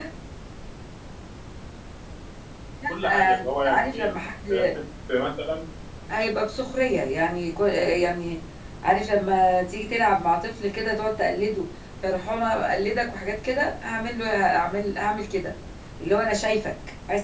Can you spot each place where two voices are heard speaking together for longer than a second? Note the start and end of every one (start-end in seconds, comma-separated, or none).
2.9-4.1